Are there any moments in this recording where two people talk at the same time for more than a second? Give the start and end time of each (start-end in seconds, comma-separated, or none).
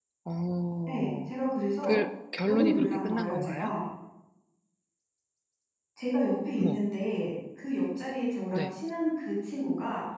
2.5-3.7